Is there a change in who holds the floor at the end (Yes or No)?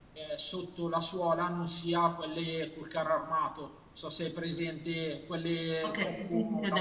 Yes